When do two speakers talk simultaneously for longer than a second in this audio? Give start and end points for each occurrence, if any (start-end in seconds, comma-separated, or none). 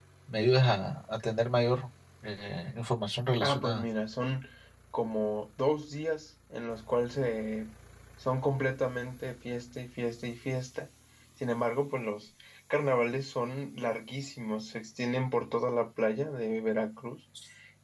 none